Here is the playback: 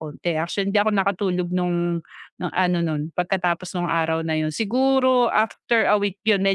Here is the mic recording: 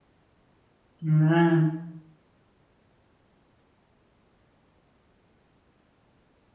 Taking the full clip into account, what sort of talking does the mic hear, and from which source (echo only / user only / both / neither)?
user only